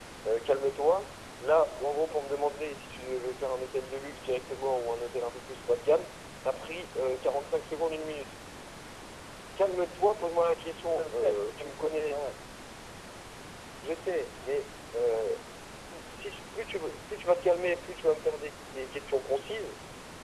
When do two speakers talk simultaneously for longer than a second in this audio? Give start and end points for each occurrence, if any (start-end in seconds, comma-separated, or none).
10.9-12.1